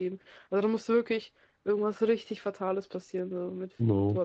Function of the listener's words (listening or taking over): taking over